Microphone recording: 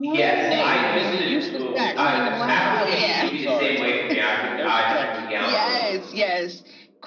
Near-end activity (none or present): present